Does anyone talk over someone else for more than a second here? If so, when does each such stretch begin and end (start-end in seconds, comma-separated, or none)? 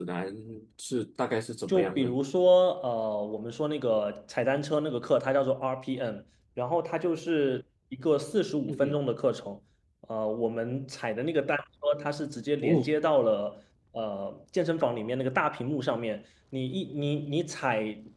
none